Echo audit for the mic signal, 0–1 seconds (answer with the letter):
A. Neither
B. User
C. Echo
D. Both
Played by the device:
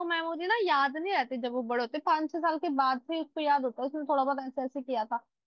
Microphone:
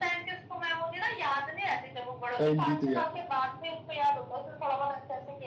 C